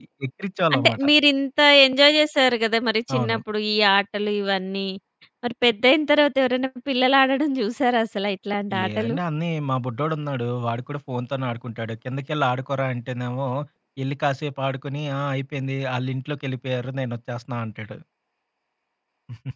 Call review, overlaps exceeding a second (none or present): none